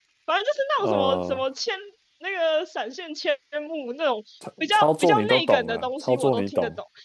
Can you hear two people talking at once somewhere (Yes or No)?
Yes